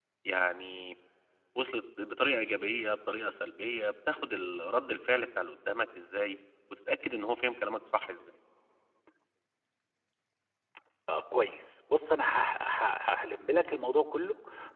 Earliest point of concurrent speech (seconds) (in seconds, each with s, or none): none